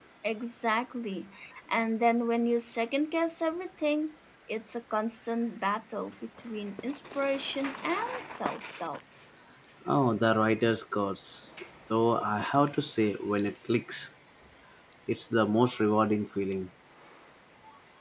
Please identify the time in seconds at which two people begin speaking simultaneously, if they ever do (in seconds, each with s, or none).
none